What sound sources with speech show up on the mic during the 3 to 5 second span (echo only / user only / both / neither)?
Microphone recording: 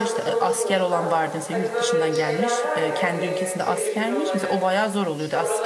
both